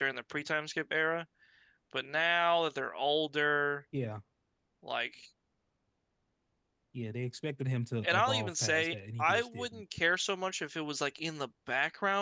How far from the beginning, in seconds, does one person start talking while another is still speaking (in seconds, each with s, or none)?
8.0 s